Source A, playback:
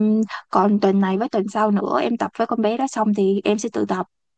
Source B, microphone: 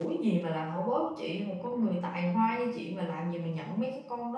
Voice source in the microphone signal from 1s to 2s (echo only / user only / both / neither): user only